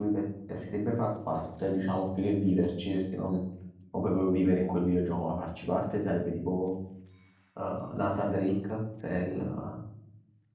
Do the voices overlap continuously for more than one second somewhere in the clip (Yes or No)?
No